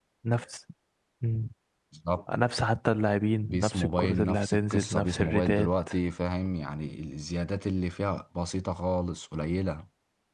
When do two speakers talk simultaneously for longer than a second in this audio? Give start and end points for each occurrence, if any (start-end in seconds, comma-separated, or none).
3.4-5.7